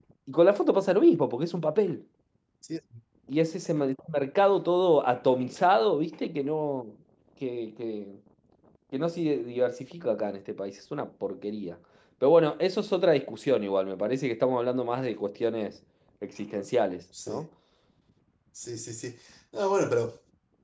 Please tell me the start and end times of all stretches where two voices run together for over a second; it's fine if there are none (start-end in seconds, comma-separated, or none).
none